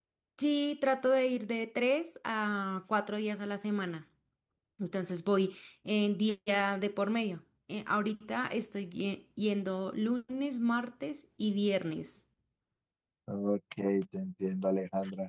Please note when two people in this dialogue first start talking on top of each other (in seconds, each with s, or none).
none